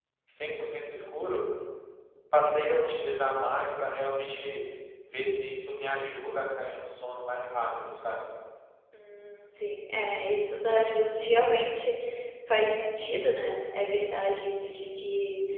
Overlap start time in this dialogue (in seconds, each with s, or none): none